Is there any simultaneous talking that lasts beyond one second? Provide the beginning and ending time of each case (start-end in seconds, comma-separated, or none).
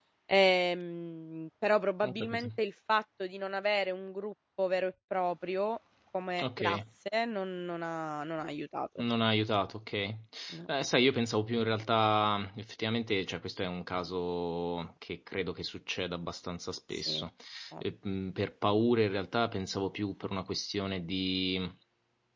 none